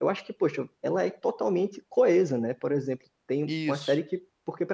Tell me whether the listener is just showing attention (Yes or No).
Yes